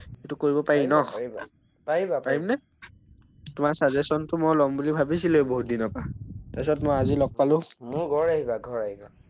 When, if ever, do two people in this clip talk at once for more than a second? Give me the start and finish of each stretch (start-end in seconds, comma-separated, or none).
none